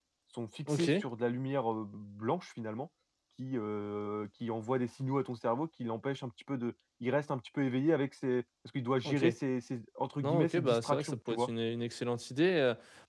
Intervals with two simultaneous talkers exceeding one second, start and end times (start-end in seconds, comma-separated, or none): 10.2-11.5